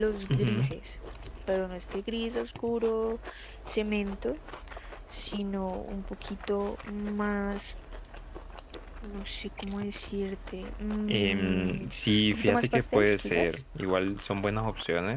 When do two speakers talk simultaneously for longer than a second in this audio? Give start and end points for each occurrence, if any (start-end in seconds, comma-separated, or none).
11.1-13.6